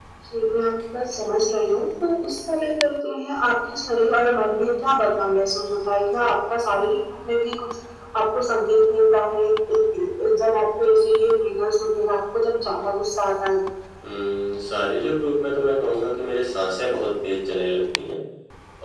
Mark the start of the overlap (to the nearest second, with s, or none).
none